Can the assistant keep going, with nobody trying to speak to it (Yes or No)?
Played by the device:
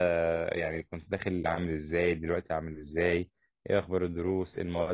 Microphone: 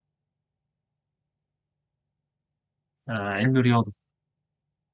No